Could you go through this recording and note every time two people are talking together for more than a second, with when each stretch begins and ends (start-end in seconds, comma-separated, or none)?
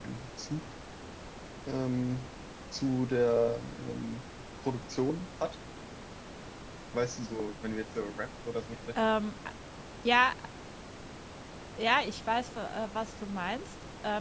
none